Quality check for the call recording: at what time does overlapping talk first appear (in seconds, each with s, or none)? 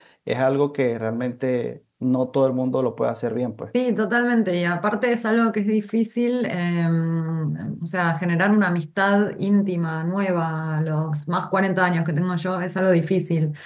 none